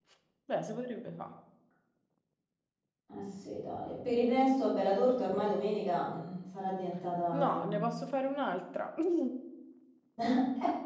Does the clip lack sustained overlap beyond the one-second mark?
Yes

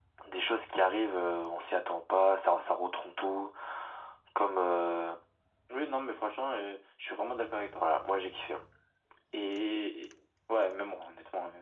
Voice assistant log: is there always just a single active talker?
Yes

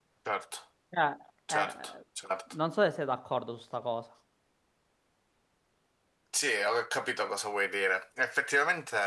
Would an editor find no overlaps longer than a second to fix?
Yes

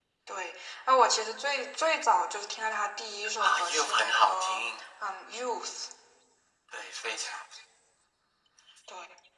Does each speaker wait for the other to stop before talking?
No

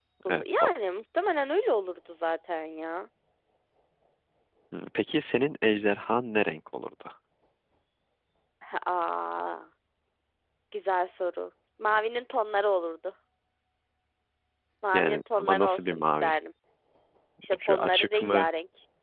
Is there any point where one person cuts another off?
Yes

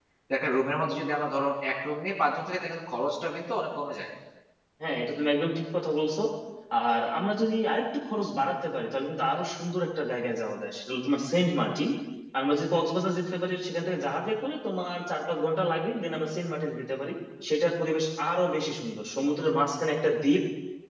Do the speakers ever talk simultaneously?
No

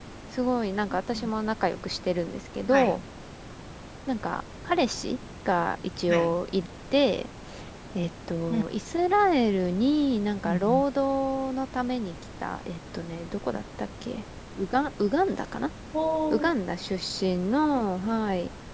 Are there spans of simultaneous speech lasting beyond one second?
No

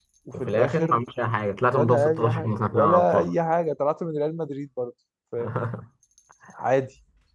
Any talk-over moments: Yes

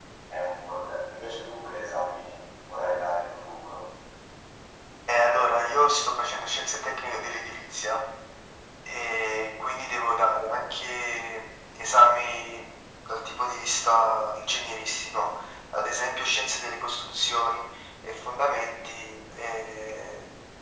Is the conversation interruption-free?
Yes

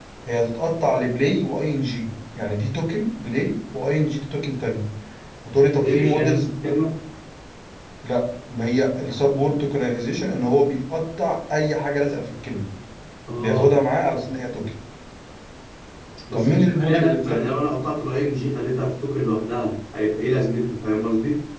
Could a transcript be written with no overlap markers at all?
No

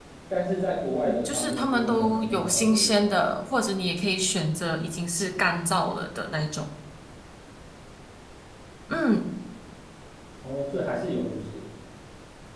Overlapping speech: Yes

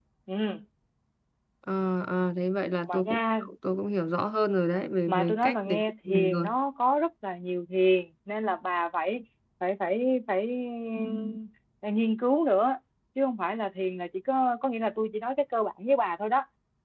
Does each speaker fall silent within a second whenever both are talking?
No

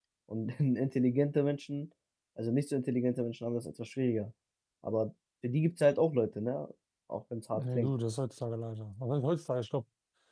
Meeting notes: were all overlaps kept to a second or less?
Yes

